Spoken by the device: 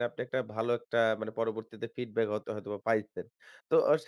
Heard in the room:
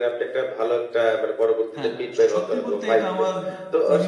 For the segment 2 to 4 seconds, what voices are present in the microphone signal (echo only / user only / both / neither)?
both